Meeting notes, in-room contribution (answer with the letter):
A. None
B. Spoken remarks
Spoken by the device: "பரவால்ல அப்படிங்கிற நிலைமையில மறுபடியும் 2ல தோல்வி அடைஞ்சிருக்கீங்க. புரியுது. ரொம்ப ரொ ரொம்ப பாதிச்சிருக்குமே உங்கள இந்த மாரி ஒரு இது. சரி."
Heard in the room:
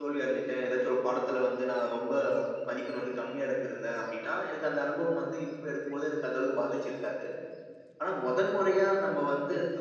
B